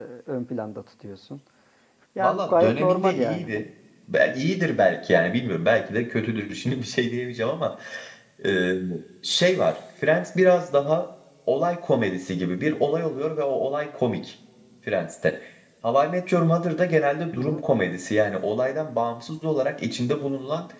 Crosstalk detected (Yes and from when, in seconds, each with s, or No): Yes, from 2.2 s